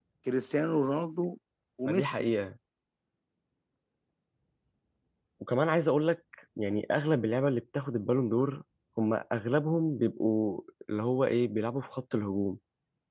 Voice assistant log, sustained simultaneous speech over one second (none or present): none